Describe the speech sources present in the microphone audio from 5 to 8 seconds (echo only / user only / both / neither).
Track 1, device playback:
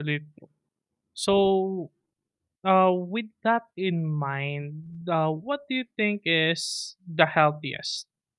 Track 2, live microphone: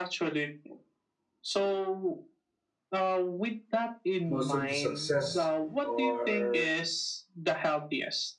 both